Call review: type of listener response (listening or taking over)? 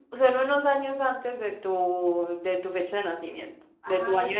taking over